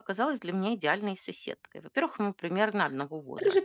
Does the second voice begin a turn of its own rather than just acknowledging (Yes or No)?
Yes